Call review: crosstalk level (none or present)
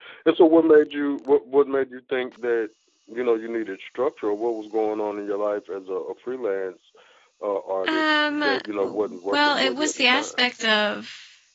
present